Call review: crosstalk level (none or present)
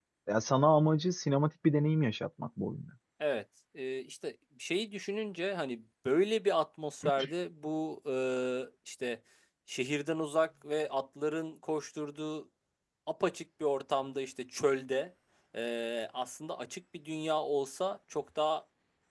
none